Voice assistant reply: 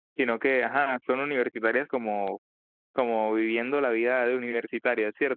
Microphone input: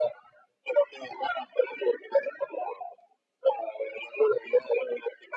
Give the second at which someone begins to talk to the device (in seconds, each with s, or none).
none